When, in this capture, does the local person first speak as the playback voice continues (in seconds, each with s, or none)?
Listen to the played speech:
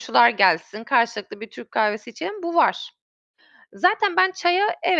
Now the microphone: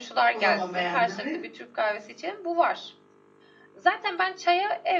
0.3 s